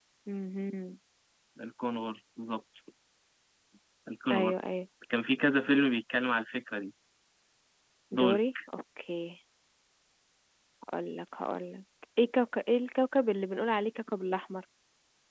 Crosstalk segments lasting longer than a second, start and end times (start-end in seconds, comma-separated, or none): none